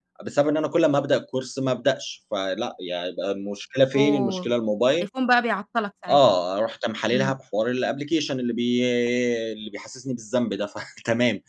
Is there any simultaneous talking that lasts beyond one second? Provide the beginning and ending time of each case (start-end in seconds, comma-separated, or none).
none